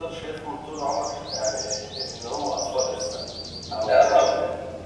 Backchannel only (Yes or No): Yes